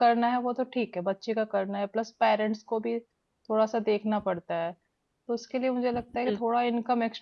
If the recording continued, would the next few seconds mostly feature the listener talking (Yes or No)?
No